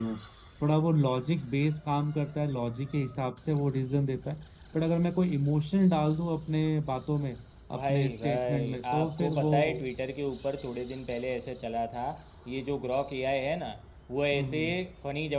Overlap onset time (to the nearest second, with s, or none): 8 s